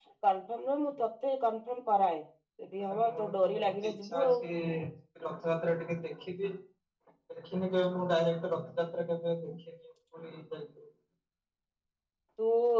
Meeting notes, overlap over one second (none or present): present